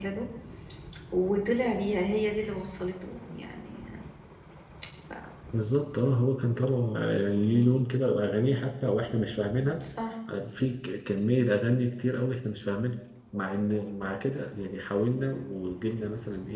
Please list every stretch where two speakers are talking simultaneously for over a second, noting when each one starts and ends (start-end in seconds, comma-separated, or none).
none